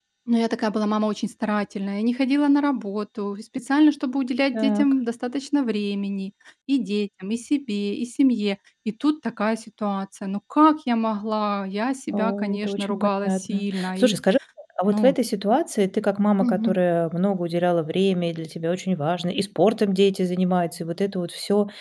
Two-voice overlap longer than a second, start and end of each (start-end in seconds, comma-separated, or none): 12.1-14.1